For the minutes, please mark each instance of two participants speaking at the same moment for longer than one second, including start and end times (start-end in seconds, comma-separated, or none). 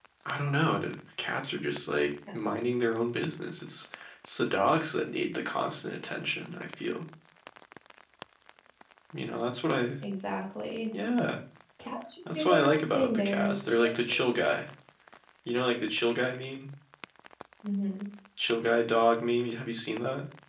12.3-13.9